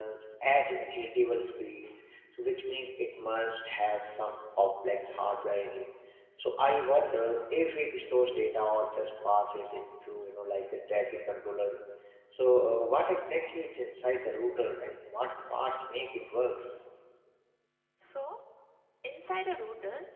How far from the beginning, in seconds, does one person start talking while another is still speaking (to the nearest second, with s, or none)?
none